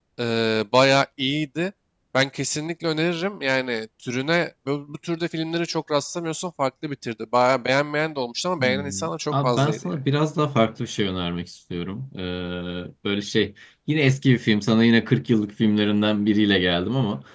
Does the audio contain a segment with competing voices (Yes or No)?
Yes